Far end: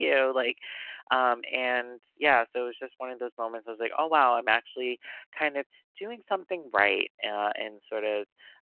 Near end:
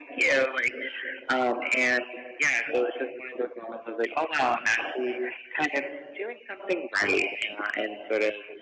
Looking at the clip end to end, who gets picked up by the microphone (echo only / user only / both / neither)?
echo only